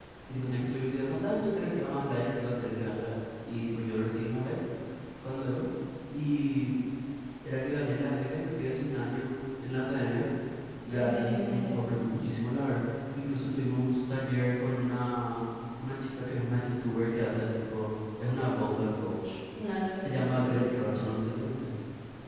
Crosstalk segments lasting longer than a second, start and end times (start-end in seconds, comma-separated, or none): 10.9-12.1